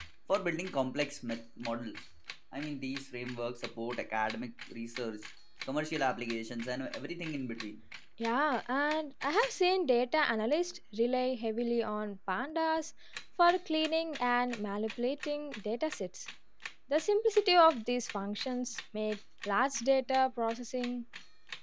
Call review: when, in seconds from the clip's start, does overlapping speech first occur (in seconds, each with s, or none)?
none